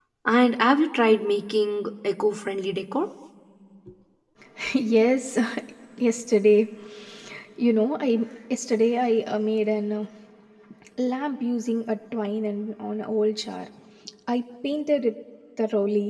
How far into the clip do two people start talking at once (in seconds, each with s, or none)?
none